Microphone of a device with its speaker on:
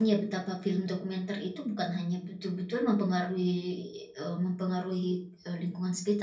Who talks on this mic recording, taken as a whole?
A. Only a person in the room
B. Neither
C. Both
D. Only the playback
A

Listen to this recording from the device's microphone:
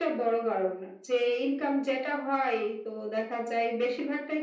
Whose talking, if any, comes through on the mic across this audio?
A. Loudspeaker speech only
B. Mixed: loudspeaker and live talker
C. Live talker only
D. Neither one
A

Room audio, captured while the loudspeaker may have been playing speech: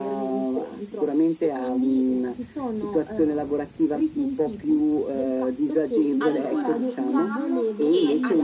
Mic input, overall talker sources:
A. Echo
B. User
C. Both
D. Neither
C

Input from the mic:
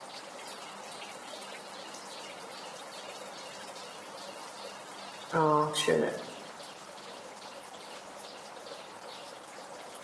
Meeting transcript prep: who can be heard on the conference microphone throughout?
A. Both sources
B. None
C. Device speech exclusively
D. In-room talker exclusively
D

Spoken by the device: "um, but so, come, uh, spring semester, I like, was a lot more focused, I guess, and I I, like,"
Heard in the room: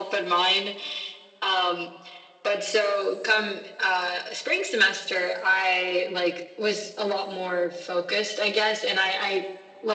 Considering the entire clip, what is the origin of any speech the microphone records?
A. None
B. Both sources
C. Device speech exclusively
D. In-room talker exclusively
C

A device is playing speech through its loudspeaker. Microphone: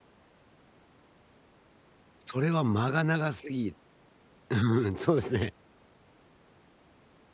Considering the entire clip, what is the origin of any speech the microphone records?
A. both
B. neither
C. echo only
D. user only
D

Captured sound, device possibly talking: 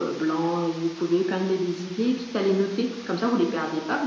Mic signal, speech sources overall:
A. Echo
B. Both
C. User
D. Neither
A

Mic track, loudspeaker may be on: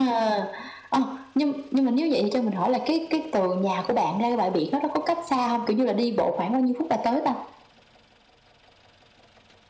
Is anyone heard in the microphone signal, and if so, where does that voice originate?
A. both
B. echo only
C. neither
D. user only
B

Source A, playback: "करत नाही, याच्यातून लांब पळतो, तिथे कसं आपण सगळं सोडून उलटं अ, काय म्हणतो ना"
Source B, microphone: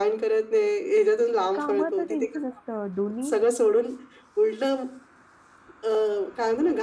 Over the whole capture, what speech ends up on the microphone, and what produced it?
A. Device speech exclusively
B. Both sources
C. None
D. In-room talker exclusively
B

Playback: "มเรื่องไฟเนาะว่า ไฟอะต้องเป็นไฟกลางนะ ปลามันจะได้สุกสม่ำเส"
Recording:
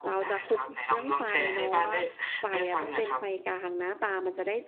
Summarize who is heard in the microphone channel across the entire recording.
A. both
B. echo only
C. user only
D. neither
A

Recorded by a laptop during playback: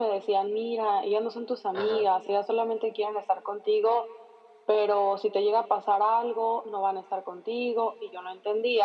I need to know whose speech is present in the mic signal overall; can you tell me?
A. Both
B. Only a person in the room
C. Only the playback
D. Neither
A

